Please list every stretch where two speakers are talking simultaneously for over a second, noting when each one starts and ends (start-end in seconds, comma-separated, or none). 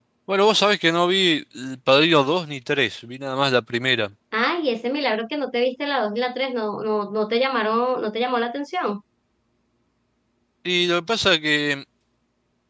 none